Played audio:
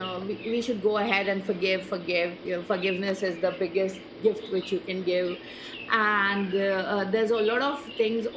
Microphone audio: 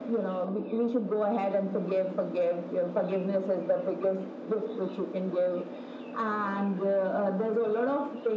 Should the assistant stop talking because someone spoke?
No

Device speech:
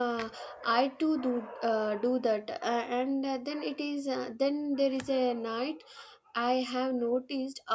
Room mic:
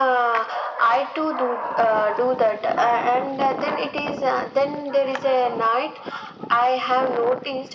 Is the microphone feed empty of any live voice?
Yes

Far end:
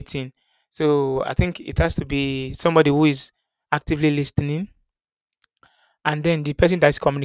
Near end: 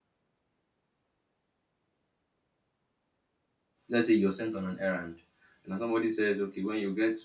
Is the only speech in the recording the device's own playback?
No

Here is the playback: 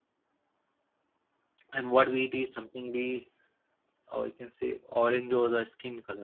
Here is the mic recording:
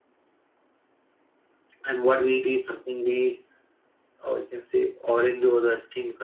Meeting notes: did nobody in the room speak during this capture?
Yes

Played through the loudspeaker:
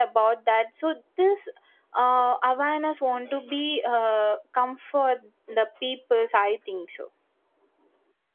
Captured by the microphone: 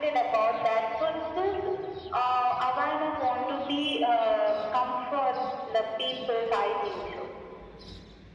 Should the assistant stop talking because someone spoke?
No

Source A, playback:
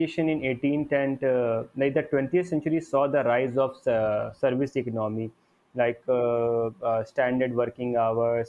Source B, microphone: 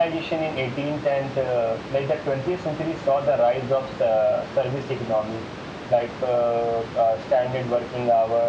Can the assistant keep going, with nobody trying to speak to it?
Yes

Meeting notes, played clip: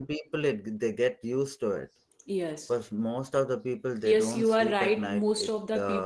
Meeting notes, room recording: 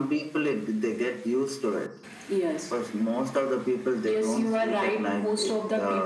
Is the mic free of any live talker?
Yes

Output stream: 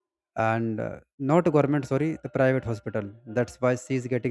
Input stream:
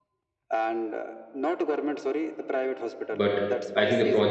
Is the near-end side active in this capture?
Yes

